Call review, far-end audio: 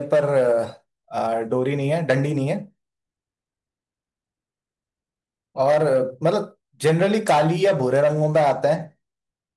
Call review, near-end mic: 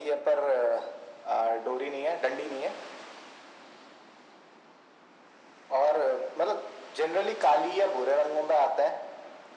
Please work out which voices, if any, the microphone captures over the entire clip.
echo only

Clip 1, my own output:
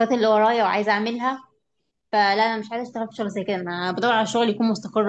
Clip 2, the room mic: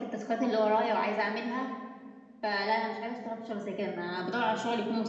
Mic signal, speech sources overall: echo only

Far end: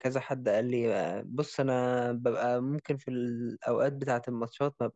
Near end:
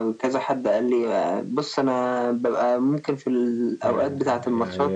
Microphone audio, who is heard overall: both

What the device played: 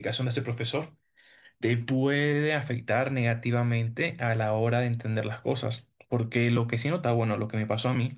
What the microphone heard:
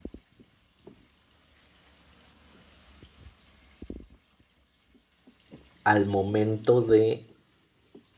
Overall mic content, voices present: user only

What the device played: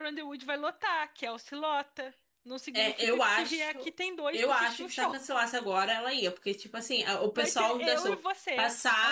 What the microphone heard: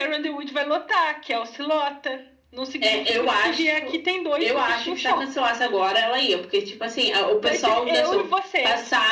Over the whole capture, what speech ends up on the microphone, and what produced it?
echo only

